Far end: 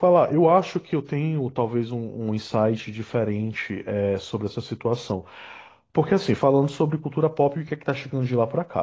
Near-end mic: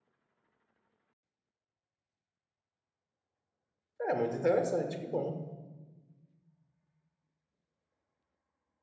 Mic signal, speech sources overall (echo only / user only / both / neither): user only